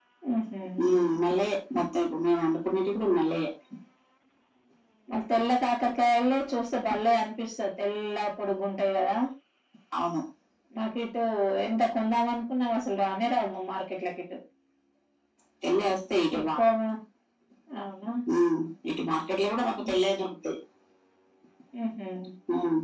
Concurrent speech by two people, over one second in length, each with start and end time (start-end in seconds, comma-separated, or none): none